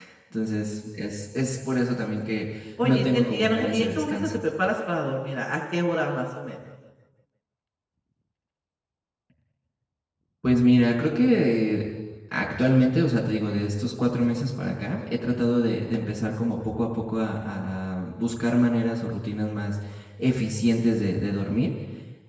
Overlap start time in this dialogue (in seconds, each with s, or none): 2.8 s